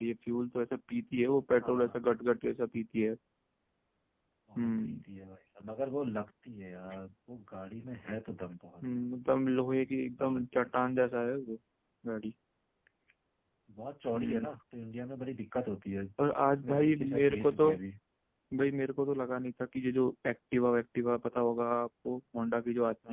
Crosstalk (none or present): present